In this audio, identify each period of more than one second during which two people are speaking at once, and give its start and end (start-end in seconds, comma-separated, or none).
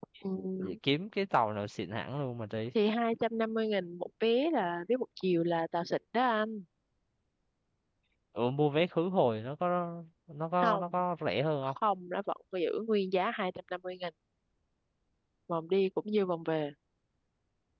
none